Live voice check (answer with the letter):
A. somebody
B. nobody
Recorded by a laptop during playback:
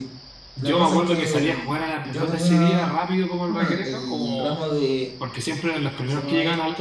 A